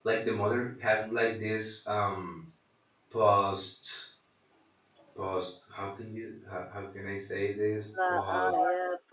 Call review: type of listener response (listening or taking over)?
taking over